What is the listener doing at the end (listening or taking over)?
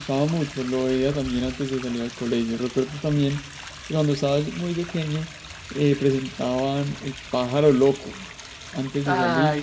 listening